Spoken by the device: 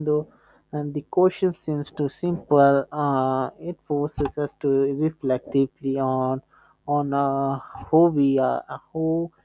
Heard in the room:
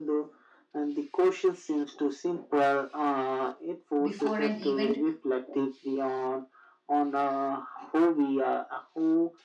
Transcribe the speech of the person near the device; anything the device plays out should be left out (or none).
before an event